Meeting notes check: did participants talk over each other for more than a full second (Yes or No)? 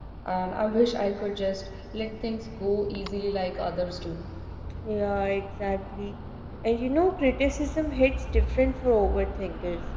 No